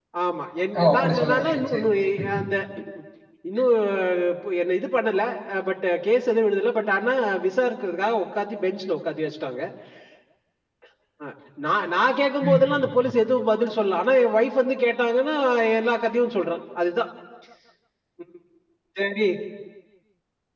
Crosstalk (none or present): present